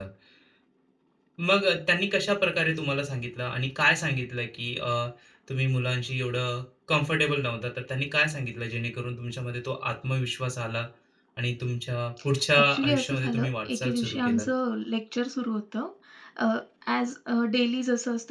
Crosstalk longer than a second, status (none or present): present